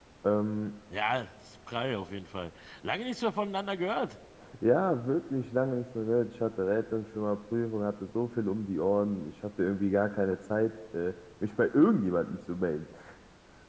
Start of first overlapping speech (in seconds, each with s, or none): none